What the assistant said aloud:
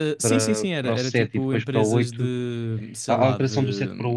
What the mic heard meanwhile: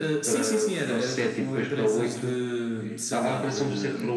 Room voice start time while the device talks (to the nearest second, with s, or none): none